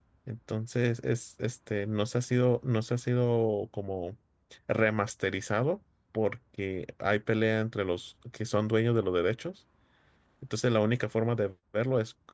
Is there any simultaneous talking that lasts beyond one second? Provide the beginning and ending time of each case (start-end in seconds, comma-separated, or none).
none